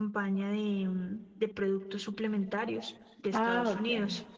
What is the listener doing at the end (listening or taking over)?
taking over